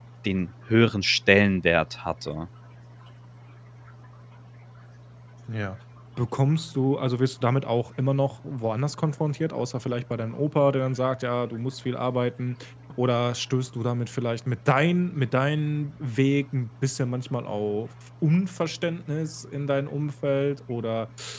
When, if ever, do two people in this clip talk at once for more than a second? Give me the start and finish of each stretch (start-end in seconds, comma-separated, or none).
none